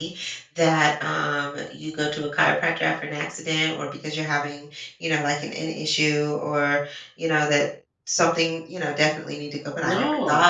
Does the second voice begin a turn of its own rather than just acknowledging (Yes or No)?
No